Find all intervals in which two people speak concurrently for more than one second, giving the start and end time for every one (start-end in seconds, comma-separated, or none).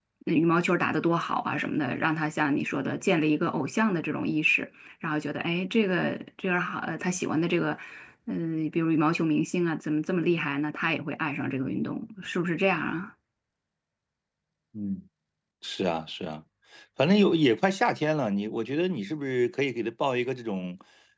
none